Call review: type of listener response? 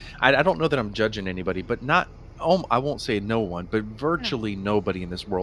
listening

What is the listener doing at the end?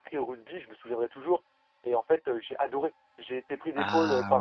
listening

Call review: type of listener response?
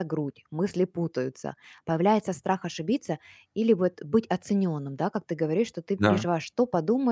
listening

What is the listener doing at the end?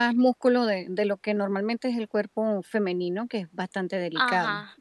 taking over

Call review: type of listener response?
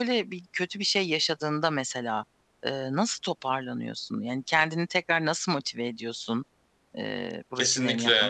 taking over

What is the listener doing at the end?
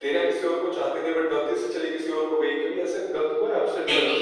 taking over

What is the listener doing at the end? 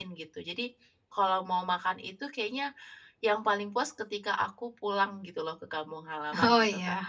taking over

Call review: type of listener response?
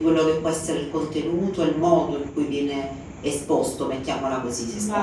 taking over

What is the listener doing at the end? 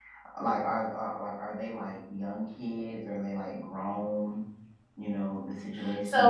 taking over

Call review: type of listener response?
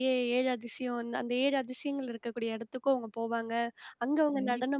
listening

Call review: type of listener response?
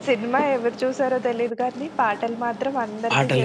taking over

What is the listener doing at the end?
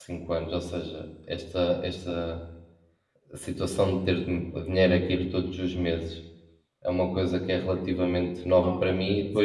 listening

